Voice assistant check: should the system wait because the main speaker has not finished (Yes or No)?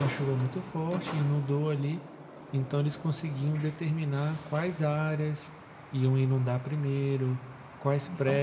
Yes